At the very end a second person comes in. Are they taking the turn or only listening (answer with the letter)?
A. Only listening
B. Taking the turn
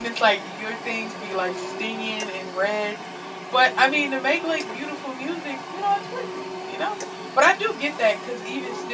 A